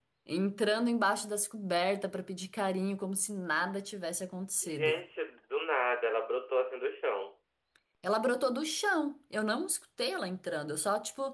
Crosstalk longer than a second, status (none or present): none